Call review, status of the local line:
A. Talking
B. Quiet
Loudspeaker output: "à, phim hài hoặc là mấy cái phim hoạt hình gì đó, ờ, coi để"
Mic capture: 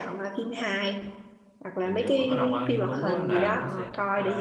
A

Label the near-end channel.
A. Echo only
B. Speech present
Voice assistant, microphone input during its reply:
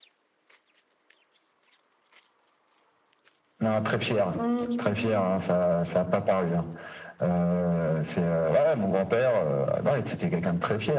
B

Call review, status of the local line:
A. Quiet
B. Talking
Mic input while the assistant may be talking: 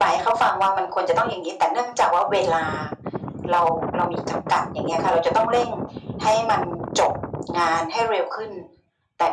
A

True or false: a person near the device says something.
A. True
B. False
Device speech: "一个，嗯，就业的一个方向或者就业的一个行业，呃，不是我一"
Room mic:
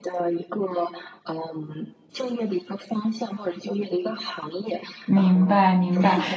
A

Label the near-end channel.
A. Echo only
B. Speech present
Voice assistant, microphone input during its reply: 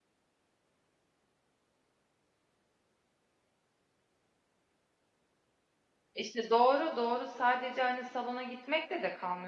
B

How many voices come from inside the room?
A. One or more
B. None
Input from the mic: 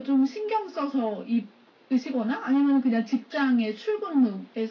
B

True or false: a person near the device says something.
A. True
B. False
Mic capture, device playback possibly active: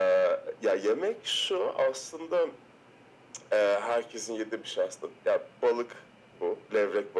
B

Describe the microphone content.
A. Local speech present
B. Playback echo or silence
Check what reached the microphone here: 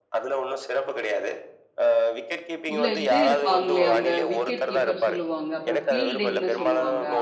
A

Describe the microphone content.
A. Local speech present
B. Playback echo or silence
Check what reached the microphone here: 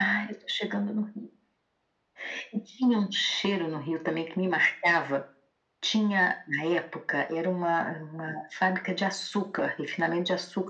B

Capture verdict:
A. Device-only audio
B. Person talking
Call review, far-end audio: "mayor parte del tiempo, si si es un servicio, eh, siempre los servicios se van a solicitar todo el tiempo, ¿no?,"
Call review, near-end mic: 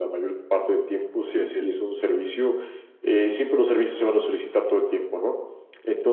B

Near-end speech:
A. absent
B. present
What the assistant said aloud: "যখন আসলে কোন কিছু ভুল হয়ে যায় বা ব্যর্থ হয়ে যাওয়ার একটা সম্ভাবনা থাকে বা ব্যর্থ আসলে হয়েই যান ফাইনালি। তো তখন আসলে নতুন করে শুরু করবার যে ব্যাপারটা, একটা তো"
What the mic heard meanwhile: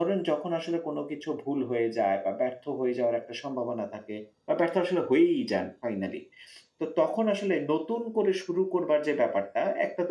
A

